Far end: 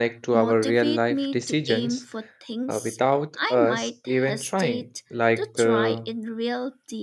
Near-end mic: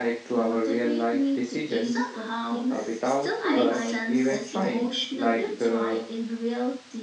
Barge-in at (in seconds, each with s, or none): 1.8 s